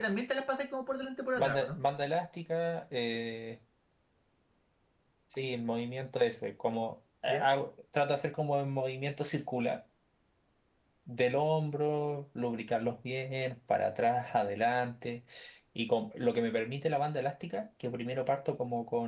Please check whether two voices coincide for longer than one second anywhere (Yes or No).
No